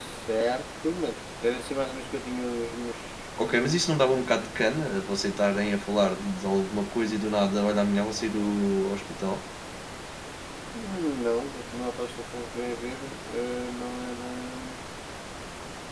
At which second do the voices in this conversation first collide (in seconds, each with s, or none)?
none